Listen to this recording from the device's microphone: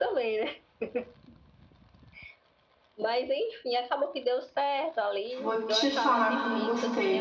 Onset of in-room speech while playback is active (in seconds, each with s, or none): 5.4 s